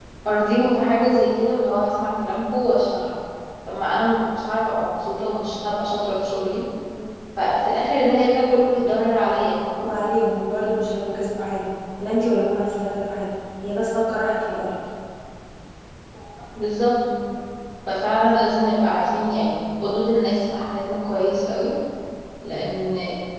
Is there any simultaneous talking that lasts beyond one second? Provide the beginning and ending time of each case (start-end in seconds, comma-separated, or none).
none